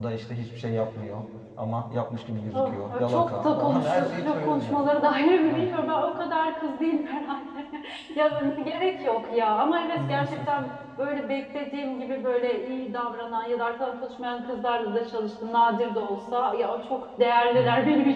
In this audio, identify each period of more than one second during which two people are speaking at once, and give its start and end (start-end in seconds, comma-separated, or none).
2.5-4.9